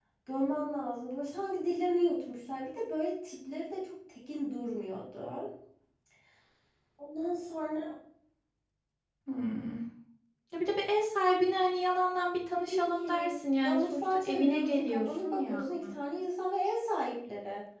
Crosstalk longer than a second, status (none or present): present